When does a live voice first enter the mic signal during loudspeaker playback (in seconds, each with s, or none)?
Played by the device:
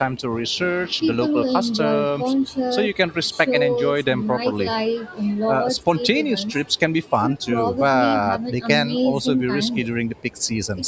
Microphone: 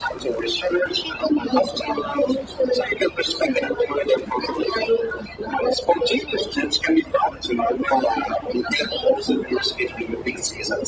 none